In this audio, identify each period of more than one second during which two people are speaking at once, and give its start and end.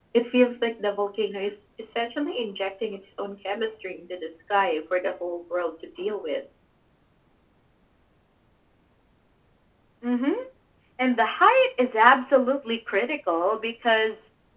none

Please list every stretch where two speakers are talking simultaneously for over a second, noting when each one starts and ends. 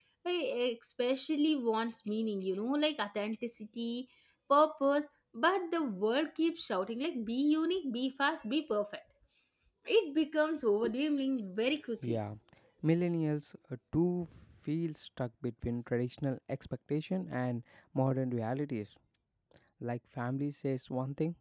none

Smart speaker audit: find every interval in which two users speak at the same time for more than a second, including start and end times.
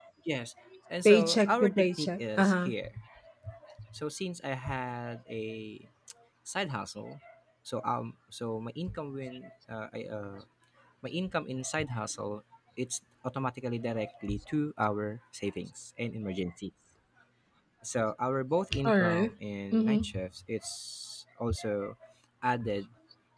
1.0-2.7

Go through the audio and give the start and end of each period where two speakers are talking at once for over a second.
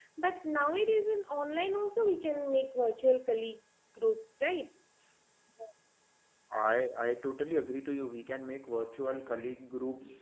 none

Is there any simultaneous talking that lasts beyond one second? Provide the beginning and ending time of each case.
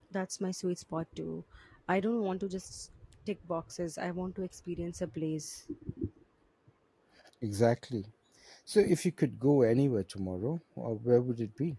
none

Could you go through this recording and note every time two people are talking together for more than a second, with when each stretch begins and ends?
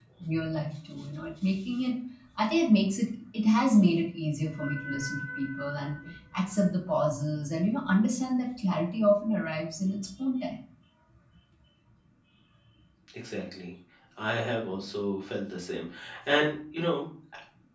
none

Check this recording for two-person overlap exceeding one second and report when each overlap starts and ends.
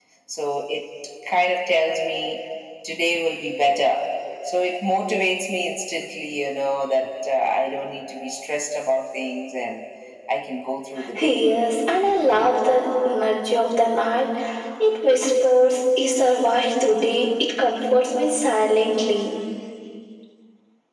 none

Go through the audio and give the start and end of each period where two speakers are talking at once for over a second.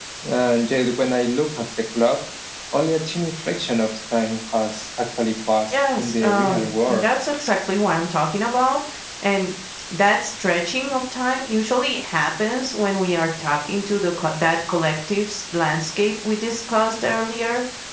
5.7-7.1

